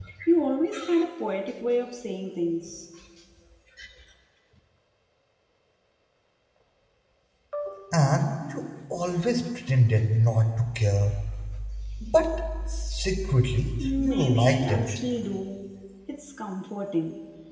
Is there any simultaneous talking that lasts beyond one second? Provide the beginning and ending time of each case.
13.8-15.0

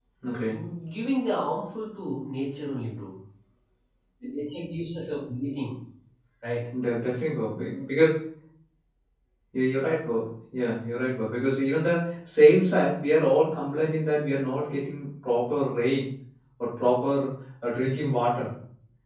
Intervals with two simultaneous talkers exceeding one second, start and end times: none

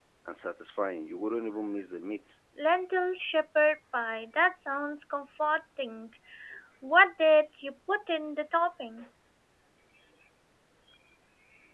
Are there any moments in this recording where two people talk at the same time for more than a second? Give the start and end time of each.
none

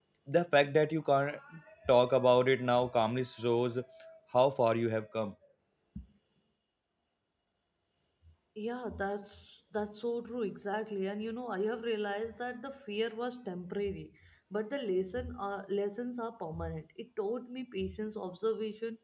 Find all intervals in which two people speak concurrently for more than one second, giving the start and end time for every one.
none

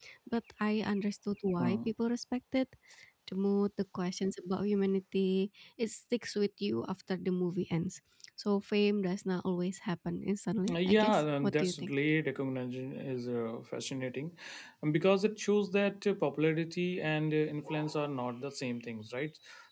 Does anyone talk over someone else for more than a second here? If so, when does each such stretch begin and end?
10.7-11.9

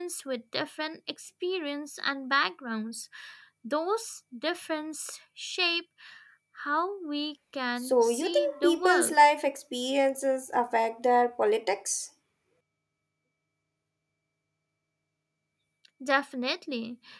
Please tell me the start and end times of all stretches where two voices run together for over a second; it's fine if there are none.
7.8-9.2

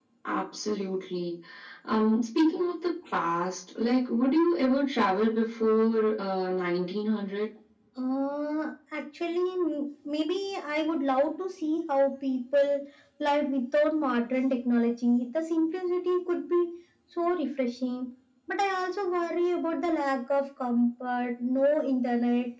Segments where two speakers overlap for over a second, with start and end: none

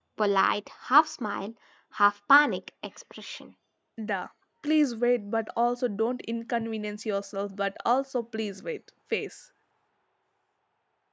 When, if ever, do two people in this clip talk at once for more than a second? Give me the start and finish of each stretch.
none

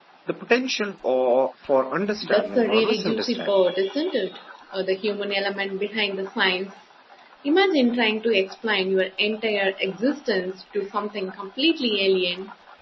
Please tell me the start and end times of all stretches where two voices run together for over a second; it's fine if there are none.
2.2-3.5

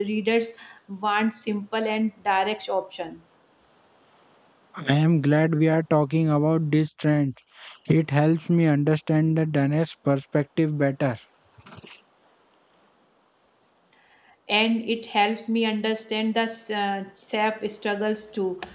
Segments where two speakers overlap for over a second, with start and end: none

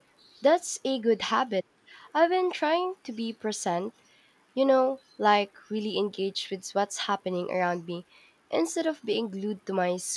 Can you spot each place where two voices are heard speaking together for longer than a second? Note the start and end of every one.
none

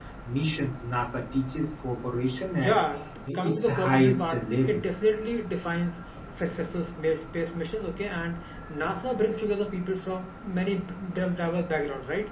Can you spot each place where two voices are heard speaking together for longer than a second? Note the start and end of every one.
3.3-4.8

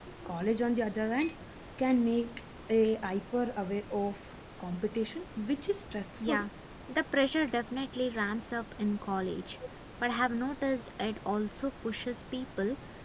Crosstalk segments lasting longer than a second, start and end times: none

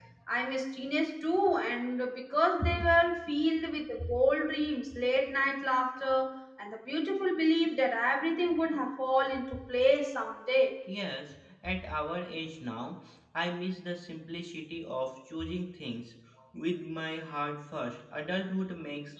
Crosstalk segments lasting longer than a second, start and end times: none

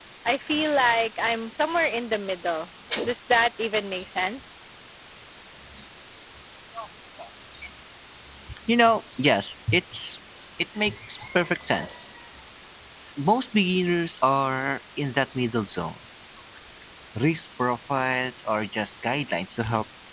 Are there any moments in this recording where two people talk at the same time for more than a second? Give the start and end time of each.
none

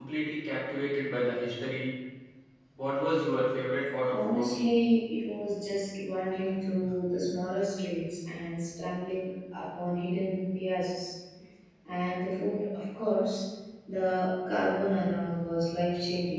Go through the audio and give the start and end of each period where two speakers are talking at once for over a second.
none

